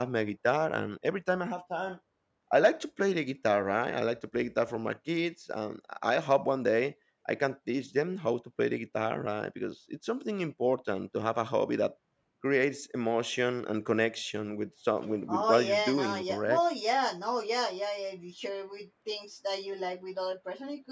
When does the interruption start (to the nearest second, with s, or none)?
15 s